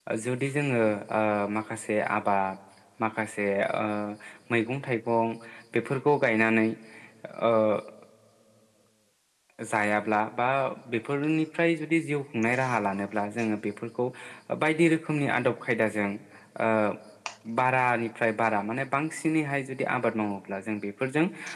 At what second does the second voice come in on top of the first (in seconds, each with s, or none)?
none